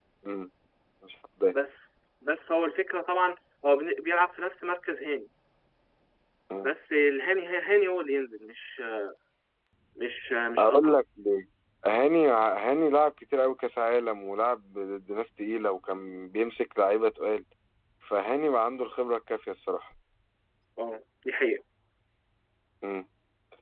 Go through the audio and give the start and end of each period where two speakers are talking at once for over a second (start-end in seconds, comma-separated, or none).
none